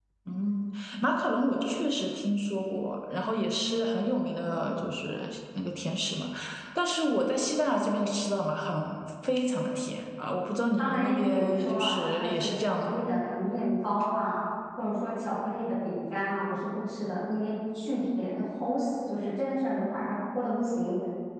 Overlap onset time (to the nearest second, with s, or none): 11 s